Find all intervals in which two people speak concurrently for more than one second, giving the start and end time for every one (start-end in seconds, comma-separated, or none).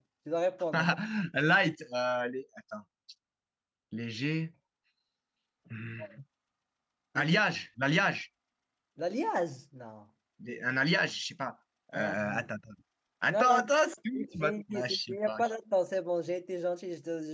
14.2-15.4